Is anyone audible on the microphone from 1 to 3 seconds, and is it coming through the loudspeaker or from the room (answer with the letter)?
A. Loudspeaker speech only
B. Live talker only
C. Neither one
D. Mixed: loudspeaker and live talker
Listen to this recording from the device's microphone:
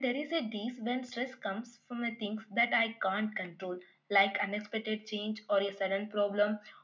A